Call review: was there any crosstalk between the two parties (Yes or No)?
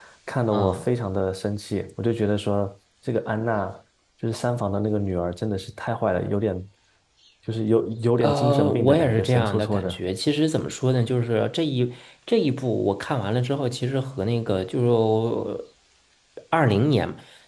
Yes